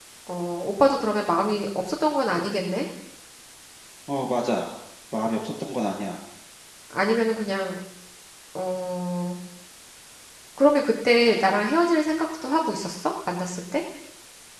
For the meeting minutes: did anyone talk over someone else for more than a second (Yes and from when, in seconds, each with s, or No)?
No